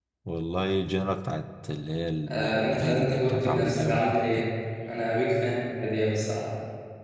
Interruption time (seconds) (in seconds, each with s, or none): 2.3 s